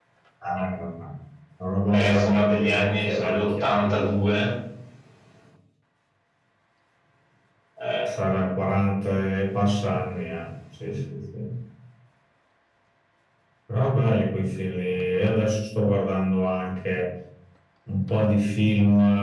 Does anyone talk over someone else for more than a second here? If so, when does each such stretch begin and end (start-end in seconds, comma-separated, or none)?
1.9-3.9